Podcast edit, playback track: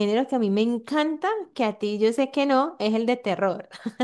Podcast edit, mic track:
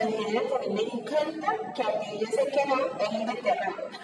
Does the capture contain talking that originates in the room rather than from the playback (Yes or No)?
No